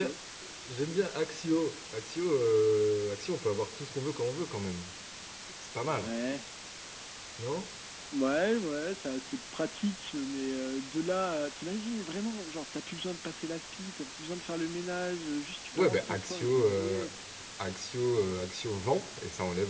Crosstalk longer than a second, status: present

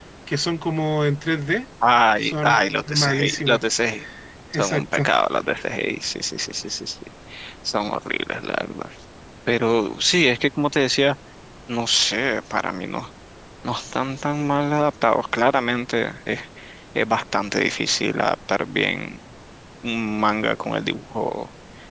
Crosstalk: present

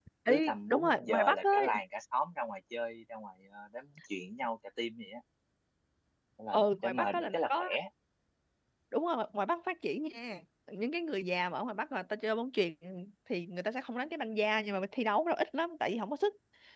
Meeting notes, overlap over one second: present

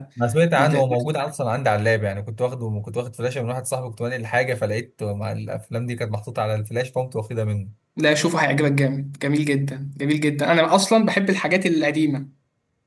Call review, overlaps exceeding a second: none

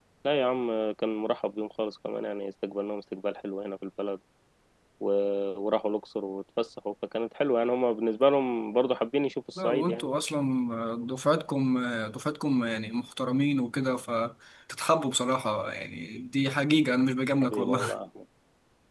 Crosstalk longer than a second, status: none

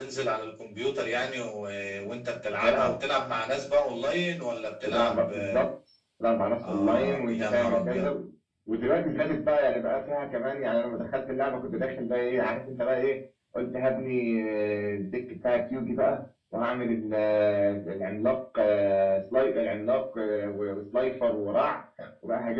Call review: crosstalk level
present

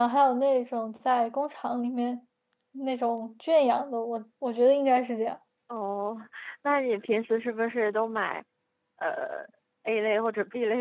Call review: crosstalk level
none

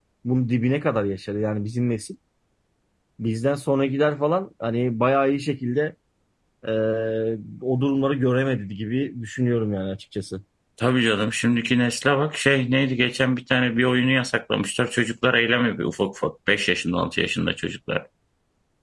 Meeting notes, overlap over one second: none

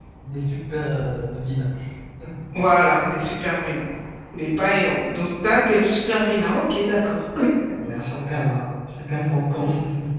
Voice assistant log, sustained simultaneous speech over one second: none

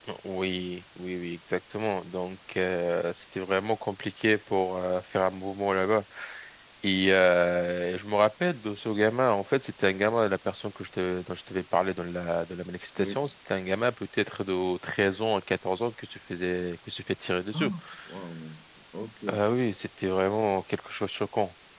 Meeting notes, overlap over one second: none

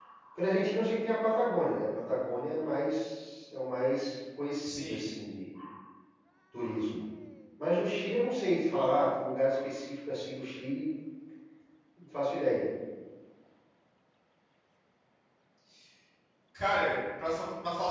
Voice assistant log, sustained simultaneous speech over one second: none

